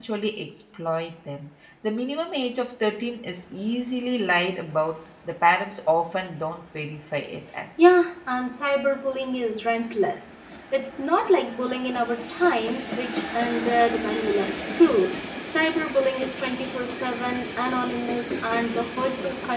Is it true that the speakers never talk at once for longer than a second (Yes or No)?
Yes